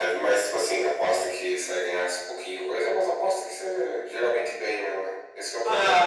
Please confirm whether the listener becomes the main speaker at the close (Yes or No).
Yes